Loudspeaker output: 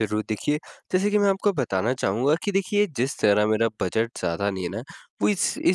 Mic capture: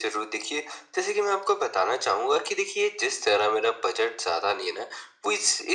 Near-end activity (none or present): none